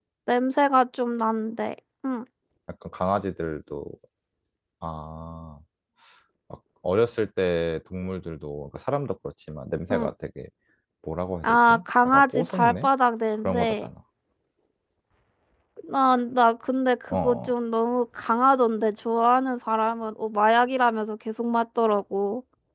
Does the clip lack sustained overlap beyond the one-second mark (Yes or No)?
No